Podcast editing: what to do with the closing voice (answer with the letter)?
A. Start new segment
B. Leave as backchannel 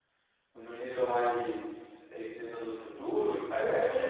A